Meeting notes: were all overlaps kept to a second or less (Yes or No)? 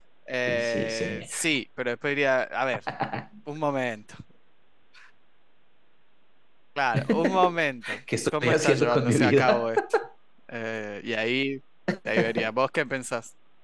No